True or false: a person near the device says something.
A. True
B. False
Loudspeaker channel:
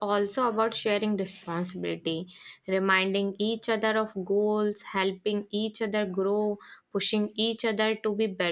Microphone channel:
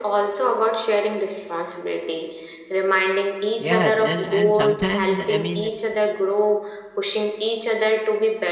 A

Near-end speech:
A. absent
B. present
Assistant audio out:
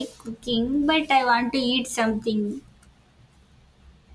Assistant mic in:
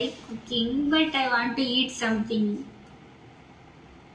A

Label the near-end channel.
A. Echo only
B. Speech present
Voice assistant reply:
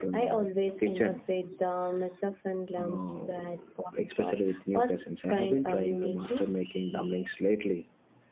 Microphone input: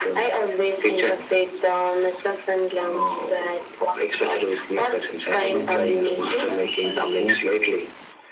B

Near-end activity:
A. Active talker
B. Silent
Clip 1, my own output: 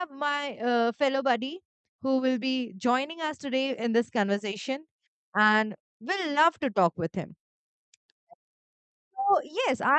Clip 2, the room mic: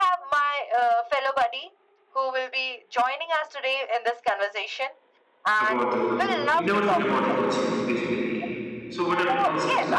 A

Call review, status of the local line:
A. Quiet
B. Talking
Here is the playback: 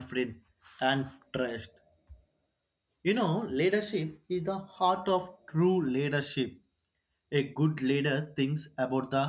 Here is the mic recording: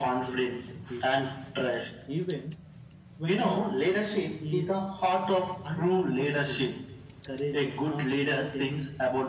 B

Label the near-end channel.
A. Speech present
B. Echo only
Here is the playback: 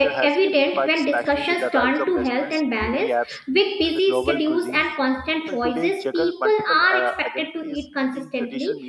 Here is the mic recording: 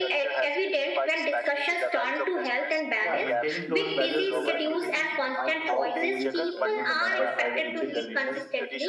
A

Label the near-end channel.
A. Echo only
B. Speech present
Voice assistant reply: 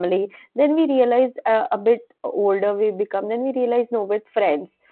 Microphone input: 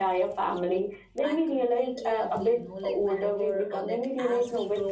B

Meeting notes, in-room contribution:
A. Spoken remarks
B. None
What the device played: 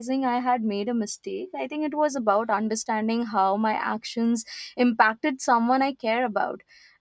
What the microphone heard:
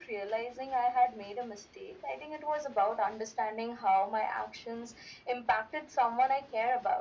B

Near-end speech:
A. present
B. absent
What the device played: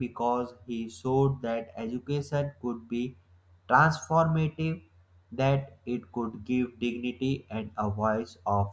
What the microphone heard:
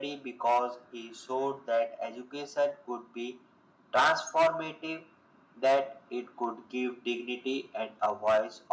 B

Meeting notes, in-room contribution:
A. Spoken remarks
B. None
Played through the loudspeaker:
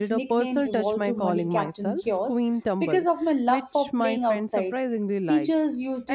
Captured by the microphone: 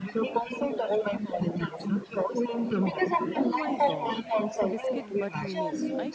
A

